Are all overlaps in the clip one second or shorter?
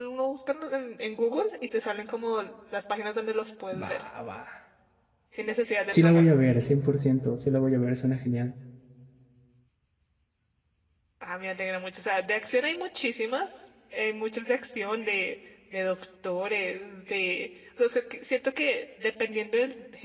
Yes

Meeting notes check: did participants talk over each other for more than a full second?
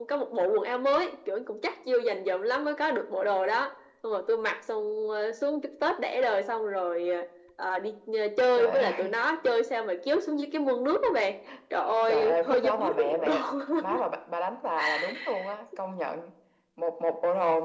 Yes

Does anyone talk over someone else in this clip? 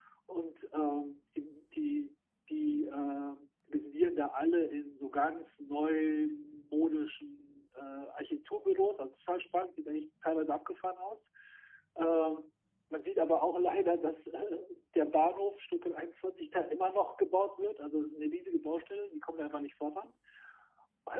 No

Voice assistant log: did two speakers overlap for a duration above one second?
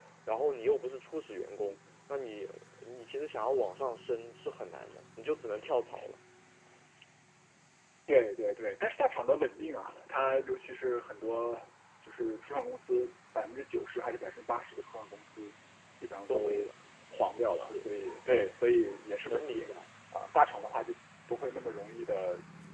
No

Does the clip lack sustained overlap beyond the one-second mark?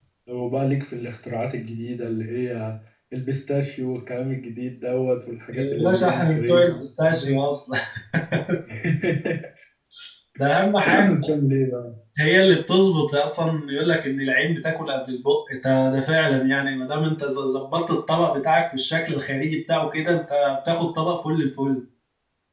No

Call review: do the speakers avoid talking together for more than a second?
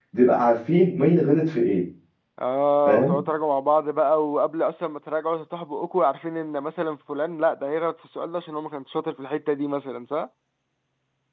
Yes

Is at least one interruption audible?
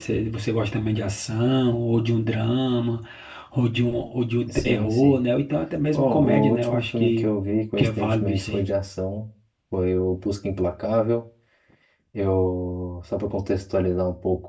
Yes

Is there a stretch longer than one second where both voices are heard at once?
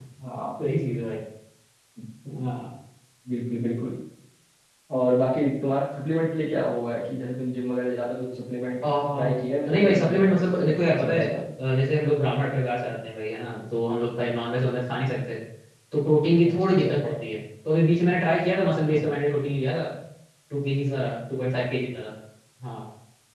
Yes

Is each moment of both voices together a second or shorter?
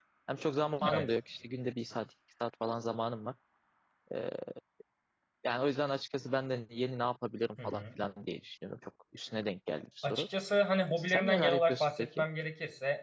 No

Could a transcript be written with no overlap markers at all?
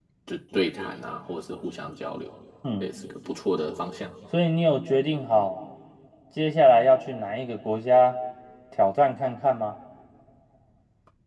Yes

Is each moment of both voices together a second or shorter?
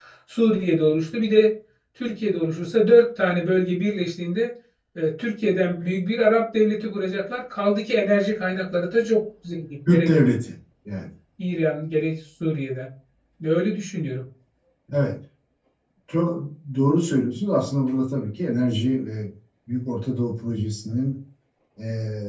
Yes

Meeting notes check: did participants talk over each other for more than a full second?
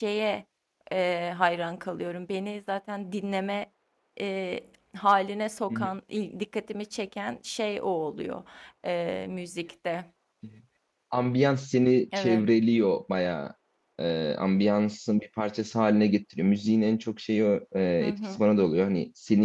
No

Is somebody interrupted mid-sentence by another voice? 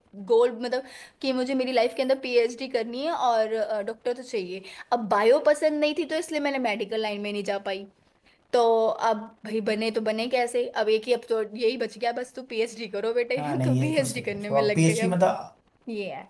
Yes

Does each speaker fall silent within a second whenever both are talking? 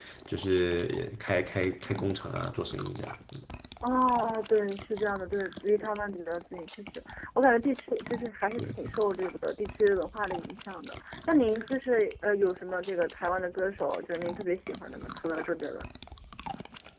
Yes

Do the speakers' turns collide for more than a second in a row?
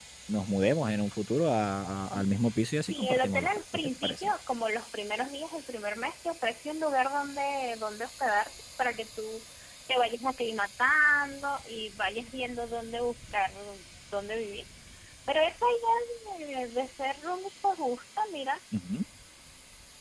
Yes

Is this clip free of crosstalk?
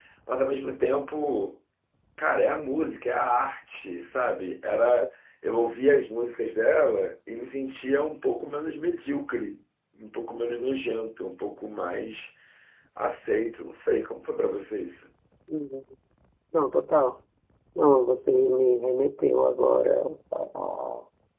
Yes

